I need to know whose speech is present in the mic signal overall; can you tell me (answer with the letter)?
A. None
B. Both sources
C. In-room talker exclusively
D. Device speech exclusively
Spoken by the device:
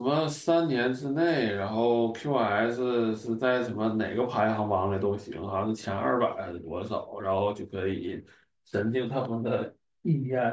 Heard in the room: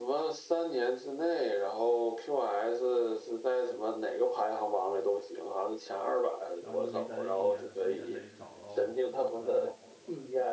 B